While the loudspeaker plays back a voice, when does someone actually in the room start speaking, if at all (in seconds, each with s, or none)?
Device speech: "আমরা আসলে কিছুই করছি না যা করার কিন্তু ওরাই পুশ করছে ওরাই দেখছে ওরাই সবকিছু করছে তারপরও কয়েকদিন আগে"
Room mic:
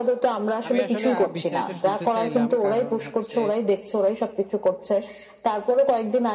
0.6 s